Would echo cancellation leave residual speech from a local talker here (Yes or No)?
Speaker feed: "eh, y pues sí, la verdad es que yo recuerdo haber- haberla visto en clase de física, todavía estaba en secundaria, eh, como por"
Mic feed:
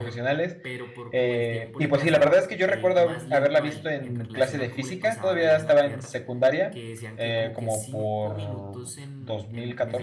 Yes